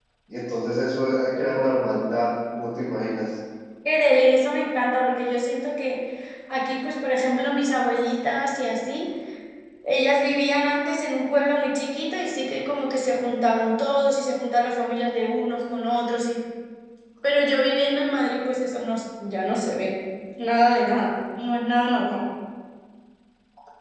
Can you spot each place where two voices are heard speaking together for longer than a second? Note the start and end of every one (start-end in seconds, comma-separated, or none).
none